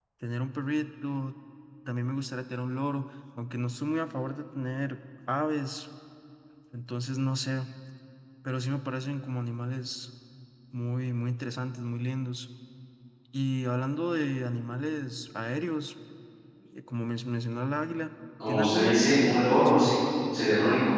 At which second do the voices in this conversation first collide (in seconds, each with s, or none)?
18.4 s